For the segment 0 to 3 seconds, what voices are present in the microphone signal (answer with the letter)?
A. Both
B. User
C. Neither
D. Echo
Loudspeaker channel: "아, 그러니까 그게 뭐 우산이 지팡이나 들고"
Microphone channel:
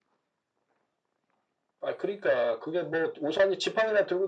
D